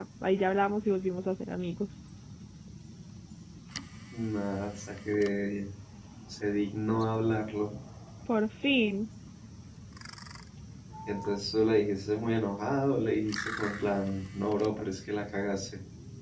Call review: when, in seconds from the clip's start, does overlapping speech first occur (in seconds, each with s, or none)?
none